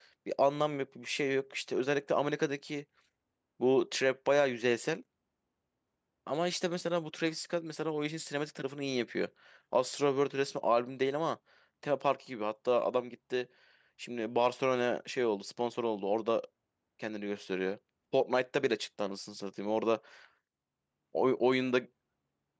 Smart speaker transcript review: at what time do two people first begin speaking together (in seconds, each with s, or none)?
none